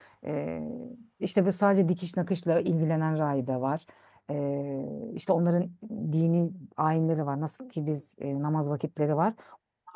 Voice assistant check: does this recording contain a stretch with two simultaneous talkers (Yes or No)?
No